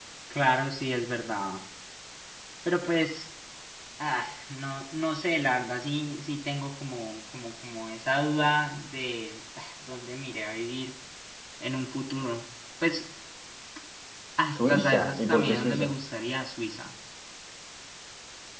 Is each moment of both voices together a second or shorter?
No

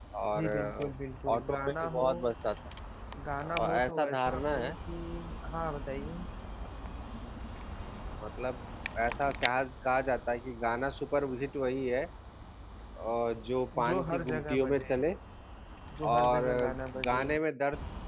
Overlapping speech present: Yes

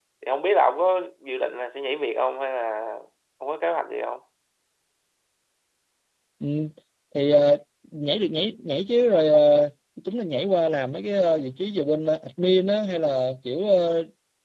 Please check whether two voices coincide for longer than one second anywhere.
No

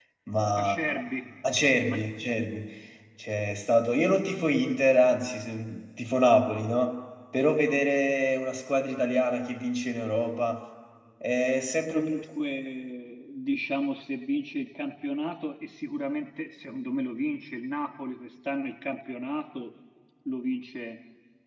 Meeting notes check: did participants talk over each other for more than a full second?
No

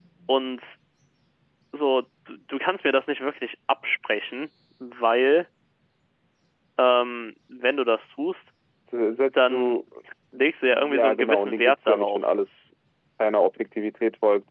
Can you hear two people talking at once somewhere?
Yes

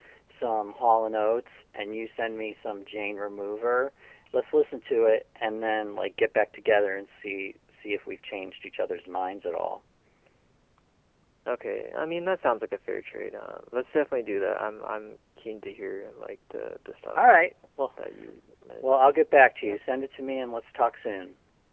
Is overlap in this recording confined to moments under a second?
Yes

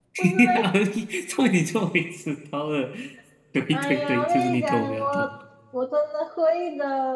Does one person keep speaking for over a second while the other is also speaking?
Yes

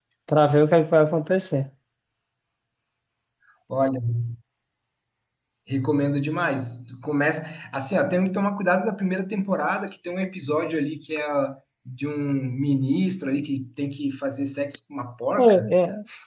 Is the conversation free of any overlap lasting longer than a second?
Yes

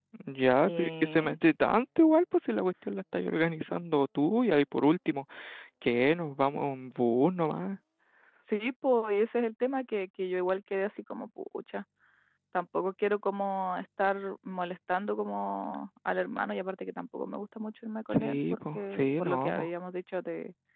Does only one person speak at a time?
No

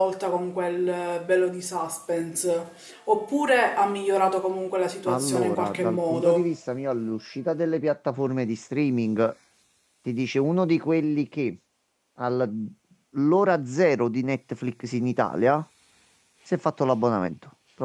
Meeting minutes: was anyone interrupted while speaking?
Yes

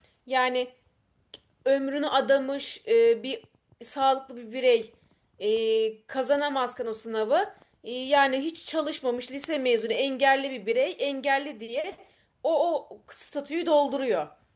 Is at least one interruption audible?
No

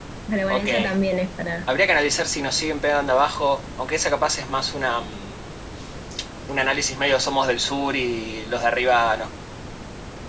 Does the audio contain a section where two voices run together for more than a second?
No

